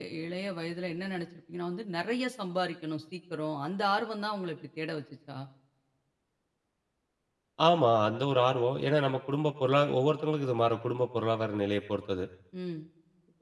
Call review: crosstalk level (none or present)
none